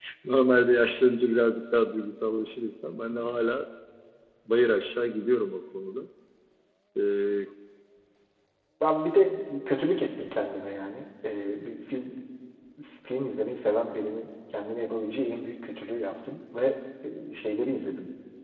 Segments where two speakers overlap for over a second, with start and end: none

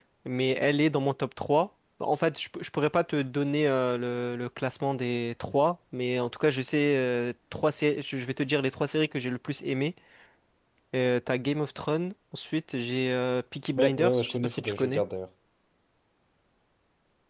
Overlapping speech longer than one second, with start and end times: 13.8-15.0

